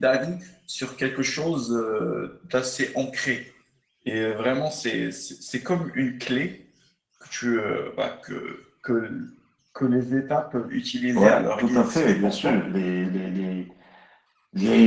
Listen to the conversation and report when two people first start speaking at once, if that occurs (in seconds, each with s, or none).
11.1 s